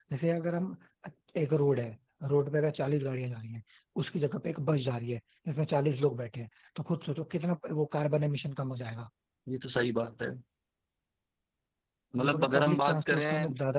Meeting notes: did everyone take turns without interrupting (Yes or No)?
No